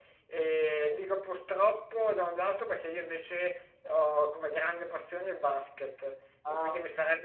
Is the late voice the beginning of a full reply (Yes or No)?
No